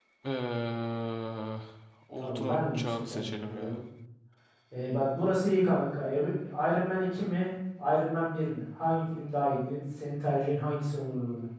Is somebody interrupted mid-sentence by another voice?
Yes, from 2.2 s

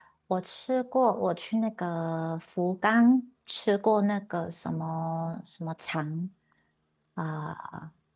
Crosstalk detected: No

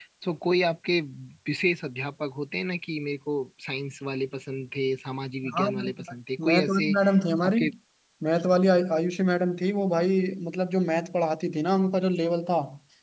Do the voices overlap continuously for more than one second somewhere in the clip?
Yes, from 5.5 s

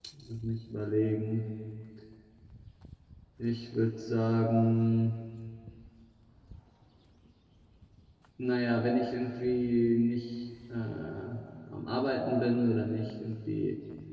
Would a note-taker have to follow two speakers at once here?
No

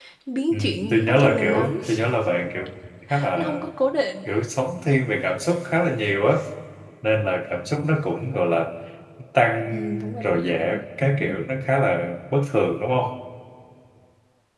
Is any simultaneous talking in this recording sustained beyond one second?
Yes, from 0.5 s

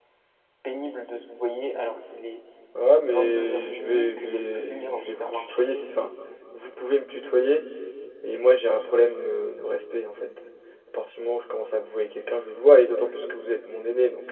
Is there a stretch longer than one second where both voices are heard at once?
Yes, from 3.1 s

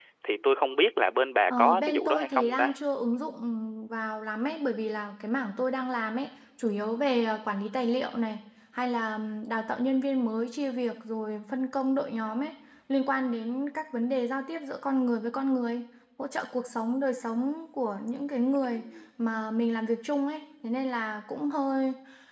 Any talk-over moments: Yes, from 1.5 s

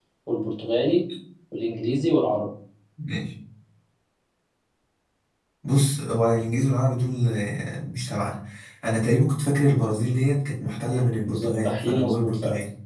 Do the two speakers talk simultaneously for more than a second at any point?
Yes, from 11.3 s

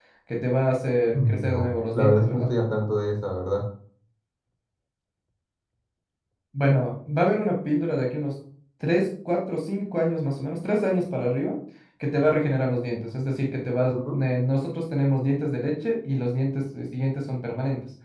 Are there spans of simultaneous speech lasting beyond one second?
Yes, from 1.1 s

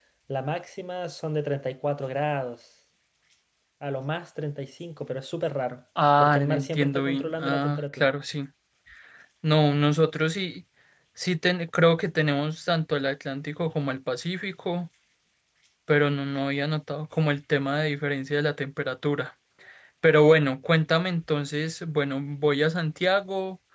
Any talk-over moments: Yes, from 6.2 s

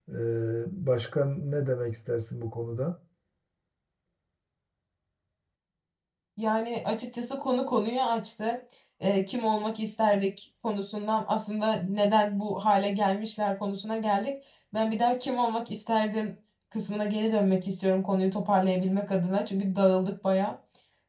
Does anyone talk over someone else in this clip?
No

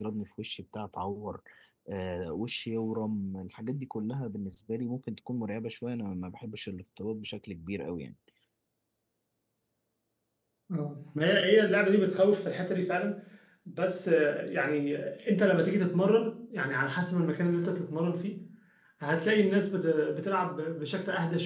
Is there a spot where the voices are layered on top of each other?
No

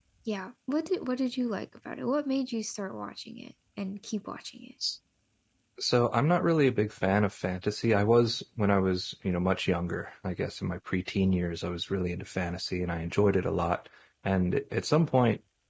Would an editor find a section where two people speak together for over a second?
No

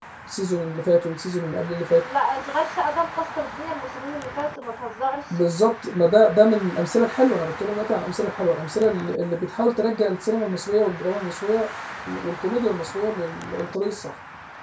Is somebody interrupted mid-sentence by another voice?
No

